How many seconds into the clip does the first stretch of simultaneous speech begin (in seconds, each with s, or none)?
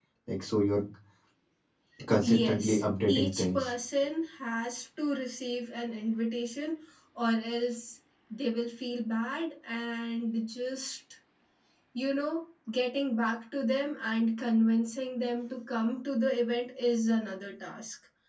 2.2 s